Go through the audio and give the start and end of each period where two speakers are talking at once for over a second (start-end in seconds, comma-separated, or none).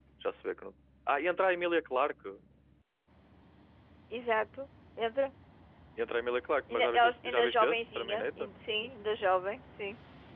6.7-8.5